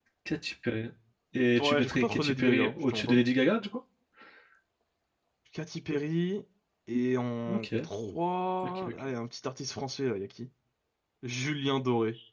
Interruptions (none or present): present